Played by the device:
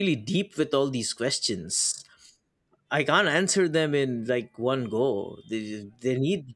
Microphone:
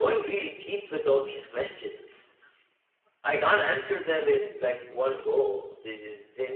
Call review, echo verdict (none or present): present